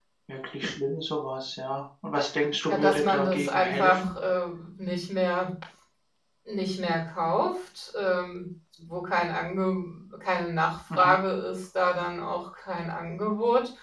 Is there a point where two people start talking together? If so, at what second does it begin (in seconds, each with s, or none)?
2.7 s